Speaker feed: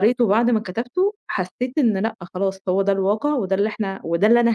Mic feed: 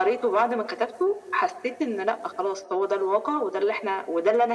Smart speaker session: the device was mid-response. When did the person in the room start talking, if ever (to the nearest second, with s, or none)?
none